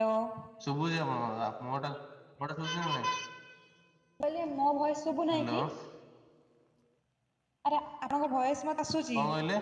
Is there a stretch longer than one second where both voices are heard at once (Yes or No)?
No